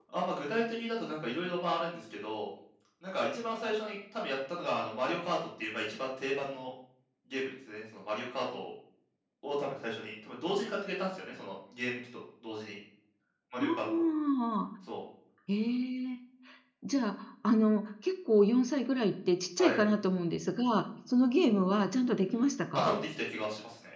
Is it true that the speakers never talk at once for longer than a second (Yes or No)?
Yes